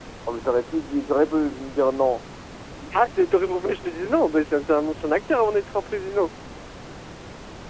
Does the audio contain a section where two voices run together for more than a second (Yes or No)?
No